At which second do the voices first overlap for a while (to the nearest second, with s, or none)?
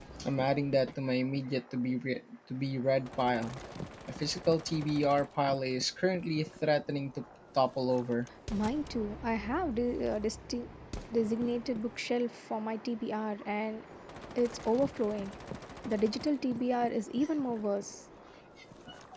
none